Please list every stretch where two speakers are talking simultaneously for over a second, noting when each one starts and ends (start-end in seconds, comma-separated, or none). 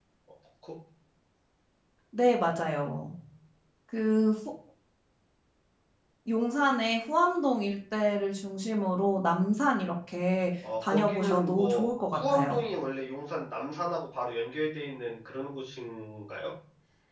10.9-12.6